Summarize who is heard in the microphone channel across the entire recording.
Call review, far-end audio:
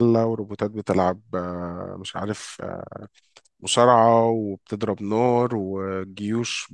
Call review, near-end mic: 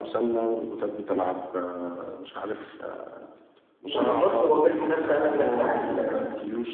both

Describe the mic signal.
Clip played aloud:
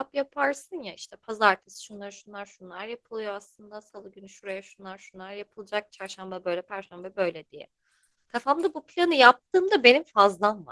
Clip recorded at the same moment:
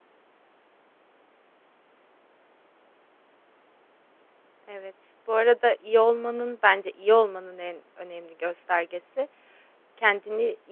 user only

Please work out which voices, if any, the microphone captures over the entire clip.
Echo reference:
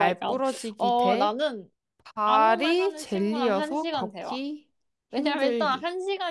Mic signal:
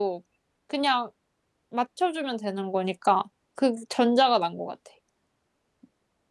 user only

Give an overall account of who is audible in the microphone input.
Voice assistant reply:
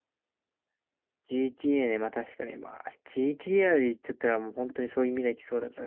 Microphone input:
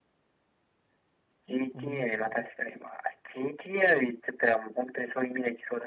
both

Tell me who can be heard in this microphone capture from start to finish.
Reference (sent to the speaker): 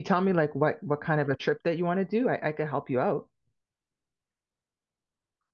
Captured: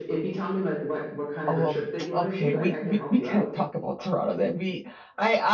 both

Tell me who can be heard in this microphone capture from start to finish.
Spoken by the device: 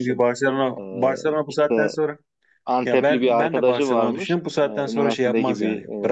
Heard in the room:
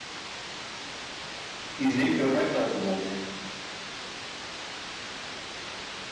user only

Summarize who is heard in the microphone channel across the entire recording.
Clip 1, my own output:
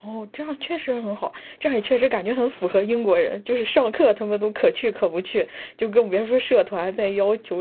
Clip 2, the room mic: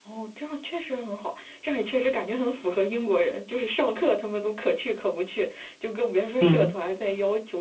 both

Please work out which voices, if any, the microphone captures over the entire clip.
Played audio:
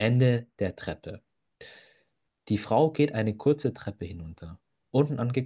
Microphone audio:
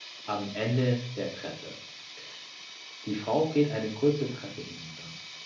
echo only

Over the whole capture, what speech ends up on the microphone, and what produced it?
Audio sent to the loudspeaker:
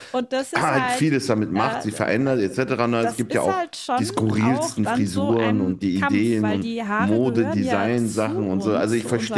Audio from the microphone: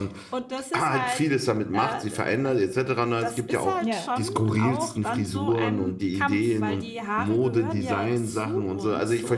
both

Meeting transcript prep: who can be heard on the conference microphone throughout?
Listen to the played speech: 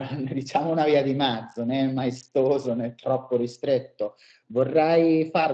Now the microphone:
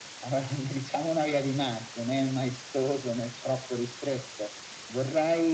echo only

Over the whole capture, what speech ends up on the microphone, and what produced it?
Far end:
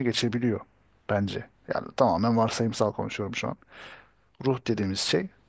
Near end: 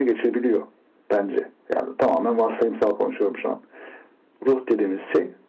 echo only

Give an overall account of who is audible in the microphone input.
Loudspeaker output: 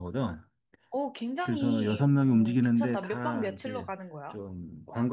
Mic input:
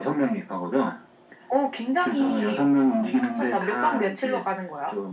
echo only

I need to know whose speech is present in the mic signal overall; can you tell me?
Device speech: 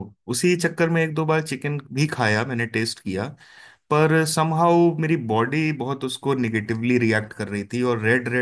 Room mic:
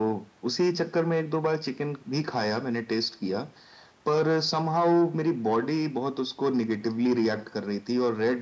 echo only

